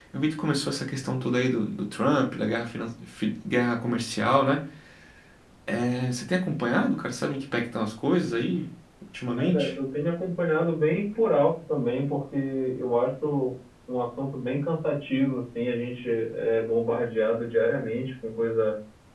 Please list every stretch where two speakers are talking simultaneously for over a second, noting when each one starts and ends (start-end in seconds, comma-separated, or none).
none